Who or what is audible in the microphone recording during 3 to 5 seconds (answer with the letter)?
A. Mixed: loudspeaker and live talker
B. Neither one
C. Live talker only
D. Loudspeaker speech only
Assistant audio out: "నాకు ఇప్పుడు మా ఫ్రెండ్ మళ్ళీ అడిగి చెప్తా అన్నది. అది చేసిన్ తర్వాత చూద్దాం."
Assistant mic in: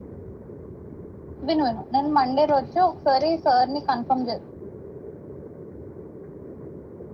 C